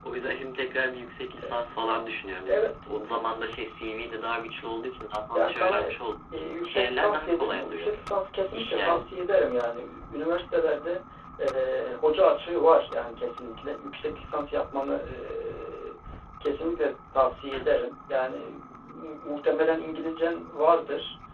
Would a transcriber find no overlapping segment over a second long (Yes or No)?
No